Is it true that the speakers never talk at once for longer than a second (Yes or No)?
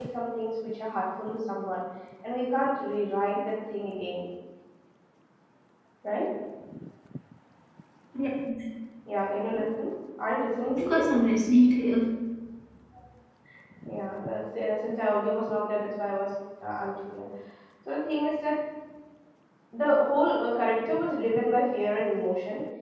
Yes